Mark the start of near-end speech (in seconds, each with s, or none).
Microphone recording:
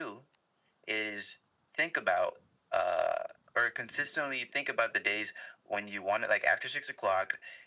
none